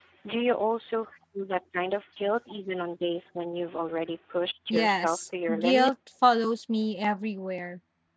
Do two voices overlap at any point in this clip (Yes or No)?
Yes